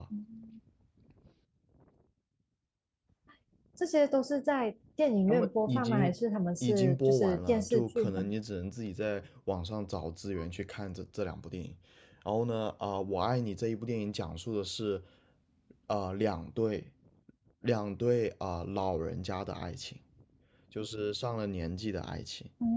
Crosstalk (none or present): present